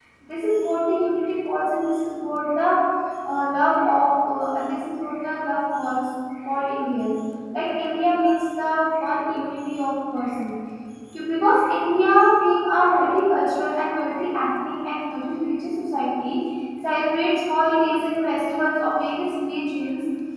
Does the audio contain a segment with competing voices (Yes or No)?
No